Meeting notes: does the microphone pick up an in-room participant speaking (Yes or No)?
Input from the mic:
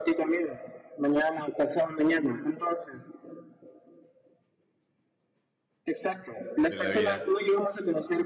Yes